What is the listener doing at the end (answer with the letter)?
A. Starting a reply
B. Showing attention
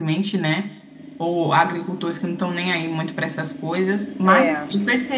B